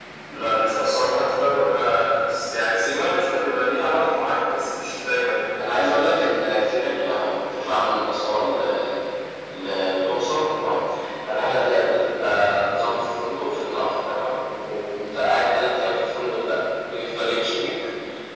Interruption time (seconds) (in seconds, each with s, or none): none